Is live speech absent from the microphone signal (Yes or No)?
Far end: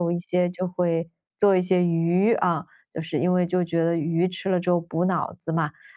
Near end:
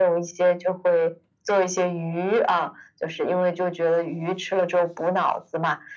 Yes